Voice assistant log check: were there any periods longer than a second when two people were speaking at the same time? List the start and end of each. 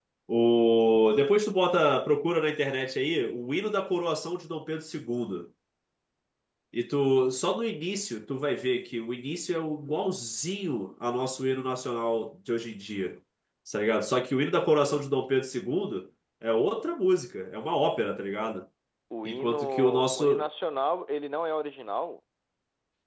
19.2-20.5

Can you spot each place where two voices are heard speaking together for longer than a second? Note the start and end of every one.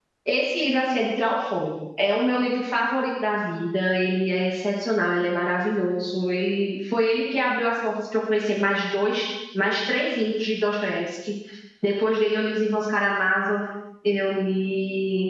none

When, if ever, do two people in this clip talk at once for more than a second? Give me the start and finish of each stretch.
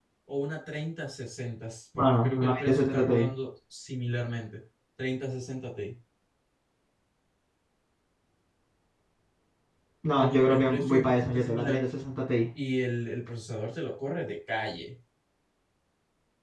1.9-3.3, 10.2-11.8

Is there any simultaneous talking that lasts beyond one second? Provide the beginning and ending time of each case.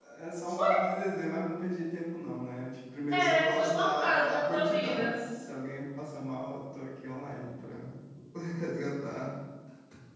3.1-5.2

